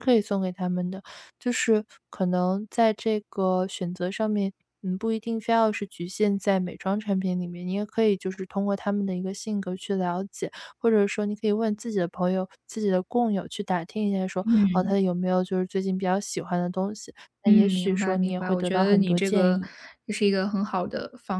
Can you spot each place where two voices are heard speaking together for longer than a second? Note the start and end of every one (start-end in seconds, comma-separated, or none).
17.5-19.6